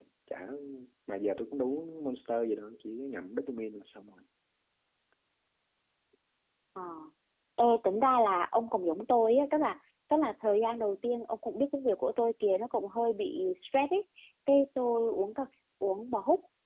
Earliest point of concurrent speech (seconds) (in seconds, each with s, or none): none